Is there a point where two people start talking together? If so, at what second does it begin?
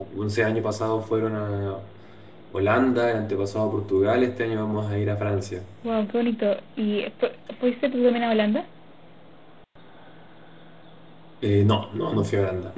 none

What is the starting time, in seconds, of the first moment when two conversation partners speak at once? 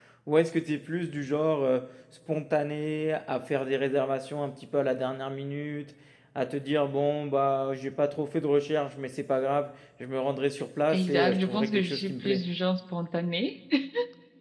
10.9 s

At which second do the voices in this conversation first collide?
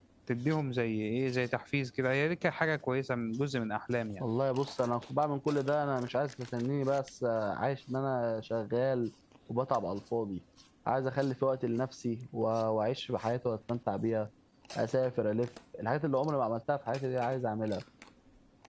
none

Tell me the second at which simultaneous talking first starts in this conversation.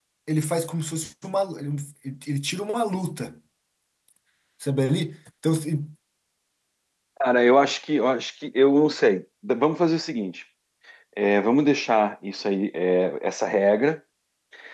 none

